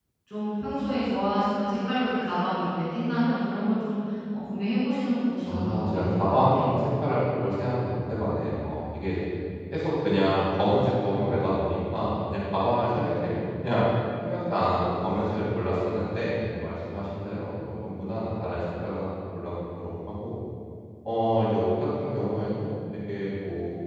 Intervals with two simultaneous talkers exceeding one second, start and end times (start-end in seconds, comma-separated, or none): 5.4-6.7